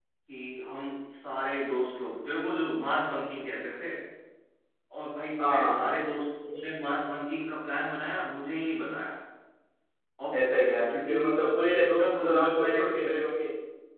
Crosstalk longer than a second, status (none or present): present